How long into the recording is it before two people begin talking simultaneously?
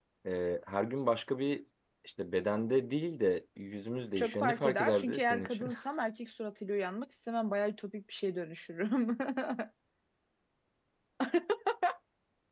4.2 s

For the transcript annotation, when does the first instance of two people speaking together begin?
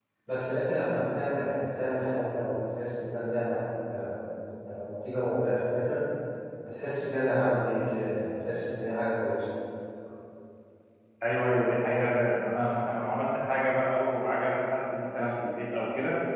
none

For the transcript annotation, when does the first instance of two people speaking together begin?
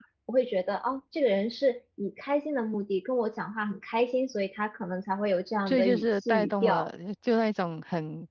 5.7 s

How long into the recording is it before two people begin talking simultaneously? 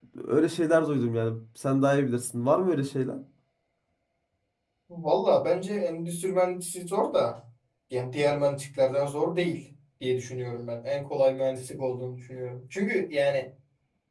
none

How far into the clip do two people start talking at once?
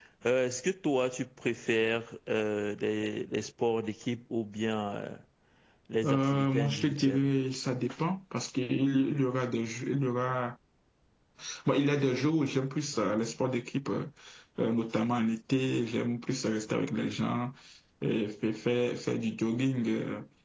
6.0 s

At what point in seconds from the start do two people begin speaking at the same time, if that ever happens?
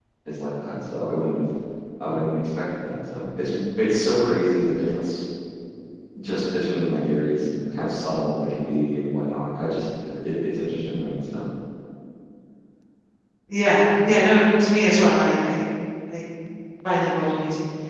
none

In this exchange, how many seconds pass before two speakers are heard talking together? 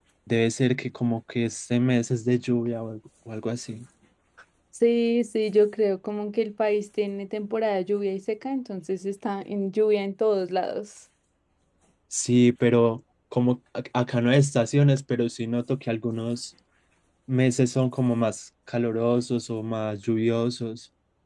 none

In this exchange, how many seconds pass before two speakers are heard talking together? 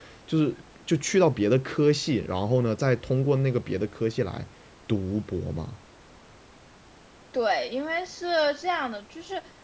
none

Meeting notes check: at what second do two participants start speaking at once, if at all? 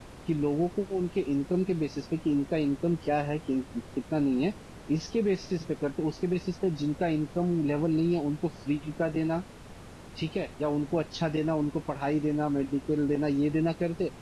none

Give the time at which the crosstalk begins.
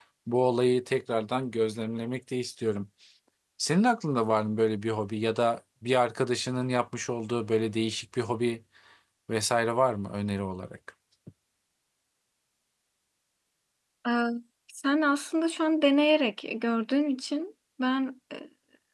none

